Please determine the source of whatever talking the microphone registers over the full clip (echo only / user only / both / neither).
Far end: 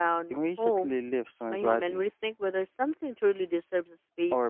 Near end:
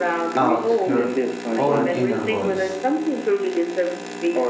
both